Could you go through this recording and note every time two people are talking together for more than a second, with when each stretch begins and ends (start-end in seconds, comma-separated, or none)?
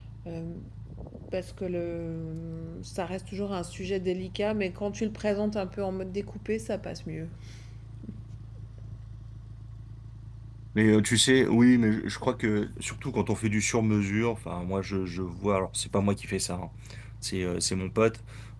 none